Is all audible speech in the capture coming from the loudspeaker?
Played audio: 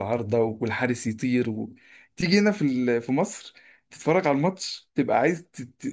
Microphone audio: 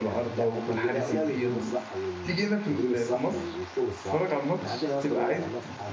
No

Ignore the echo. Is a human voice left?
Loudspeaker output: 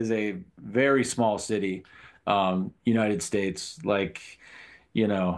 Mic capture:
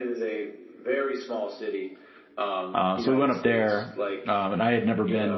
Yes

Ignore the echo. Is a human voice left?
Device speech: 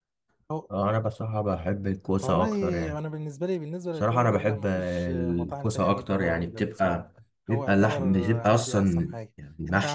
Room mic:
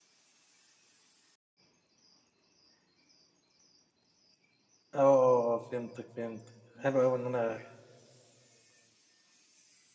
Yes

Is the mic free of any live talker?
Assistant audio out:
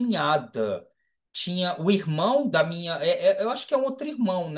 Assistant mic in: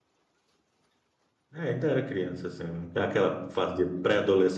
No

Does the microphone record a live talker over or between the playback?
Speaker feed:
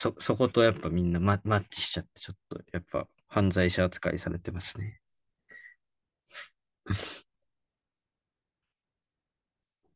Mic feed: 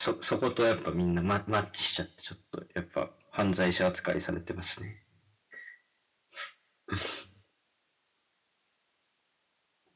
No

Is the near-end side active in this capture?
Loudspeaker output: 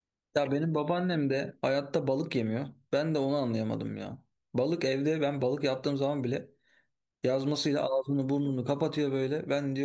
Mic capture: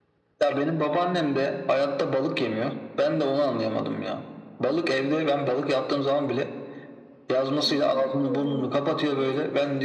Yes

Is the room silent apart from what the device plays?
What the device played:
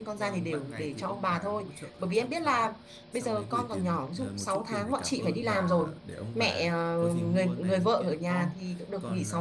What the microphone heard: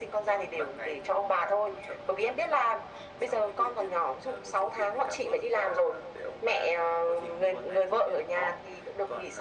Yes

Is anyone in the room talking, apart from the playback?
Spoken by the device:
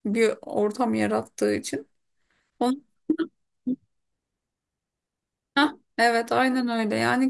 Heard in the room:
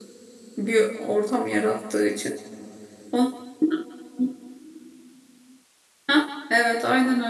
No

